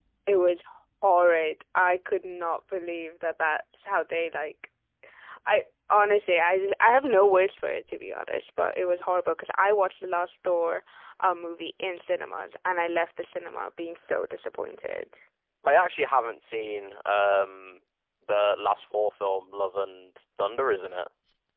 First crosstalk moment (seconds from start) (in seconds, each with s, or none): none